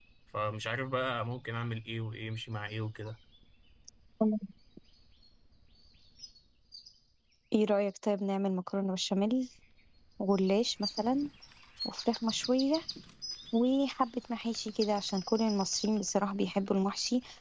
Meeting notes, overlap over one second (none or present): none